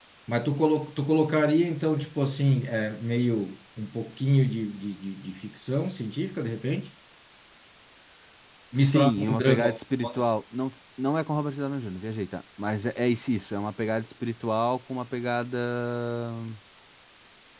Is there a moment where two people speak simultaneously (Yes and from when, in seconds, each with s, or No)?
Yes, from 8.8 s